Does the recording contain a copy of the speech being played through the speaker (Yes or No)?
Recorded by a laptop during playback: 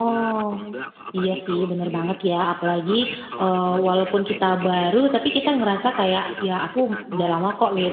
Yes